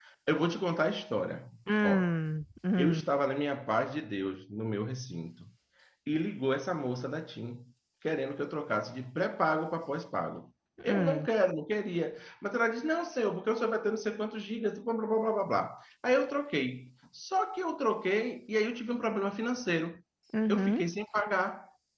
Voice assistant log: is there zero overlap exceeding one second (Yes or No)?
Yes